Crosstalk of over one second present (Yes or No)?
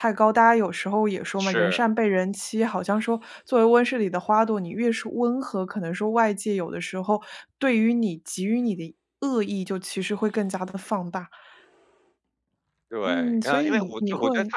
Yes